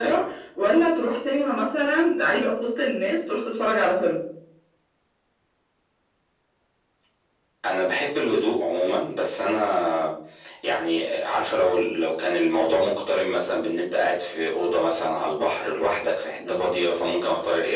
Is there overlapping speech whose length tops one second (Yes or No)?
No